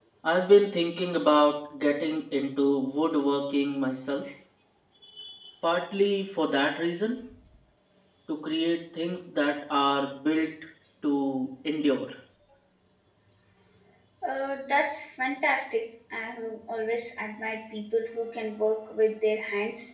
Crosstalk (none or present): none